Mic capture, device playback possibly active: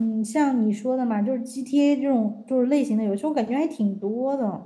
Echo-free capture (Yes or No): Yes